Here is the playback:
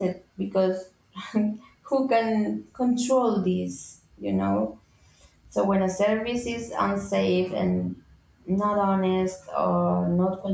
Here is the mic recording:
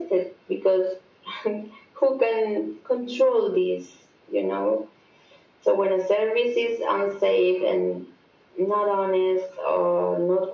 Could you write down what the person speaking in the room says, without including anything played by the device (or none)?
none